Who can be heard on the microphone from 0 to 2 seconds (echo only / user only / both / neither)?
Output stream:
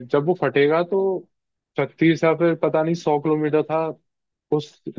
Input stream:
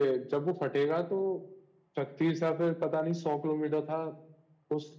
echo only